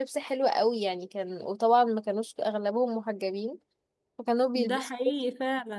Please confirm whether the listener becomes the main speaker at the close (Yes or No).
Yes